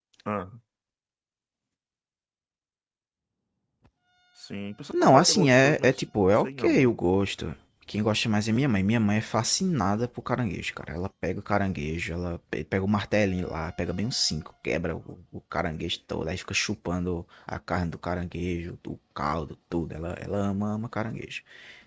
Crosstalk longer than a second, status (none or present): present